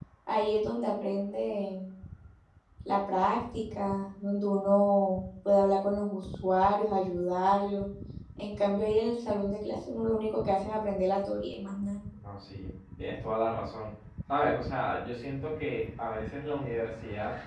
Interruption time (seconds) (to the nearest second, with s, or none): none